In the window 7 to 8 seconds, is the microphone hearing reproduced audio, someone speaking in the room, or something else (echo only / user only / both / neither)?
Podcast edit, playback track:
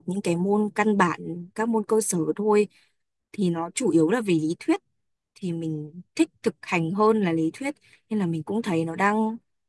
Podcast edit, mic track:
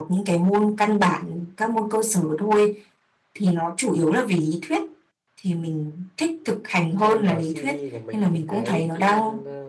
both